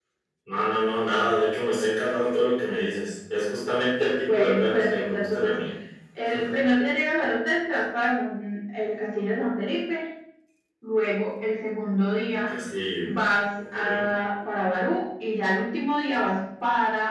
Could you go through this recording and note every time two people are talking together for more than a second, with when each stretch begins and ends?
4.2-5.6

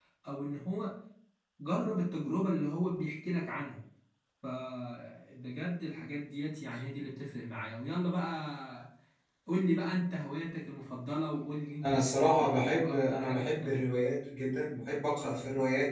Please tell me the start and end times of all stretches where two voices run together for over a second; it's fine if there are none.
11.8-14.1

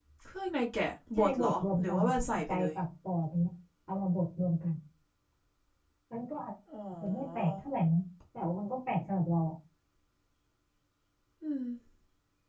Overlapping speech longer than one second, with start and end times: 1.2-2.7

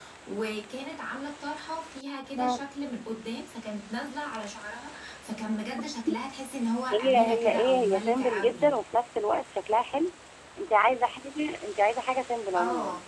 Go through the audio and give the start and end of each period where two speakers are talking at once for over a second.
6.9-8.7

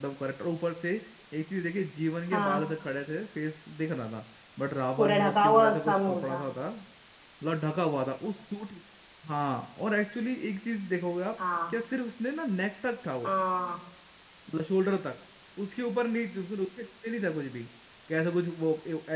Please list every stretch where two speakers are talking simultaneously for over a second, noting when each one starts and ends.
5.0-6.4

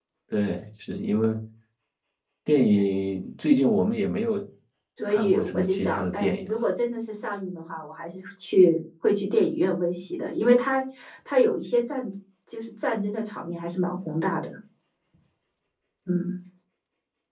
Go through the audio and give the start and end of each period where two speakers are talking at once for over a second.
5.1-6.5

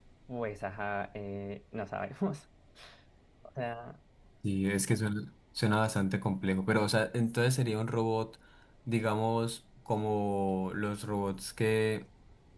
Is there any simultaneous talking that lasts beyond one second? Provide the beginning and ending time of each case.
none

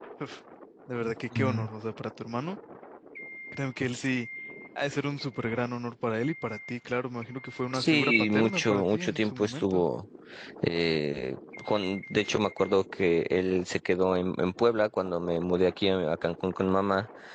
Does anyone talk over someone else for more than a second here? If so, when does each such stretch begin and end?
7.7-9.8

